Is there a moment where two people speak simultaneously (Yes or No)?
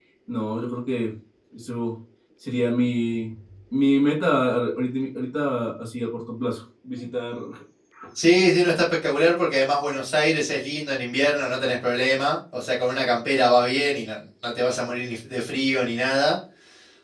No